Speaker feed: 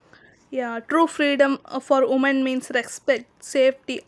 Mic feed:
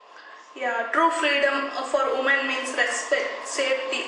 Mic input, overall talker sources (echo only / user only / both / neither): echo only